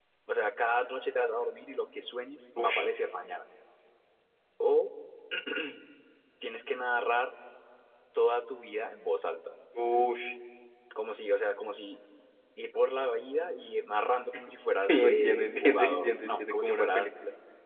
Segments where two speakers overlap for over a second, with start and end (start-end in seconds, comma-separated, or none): 14.9-17.1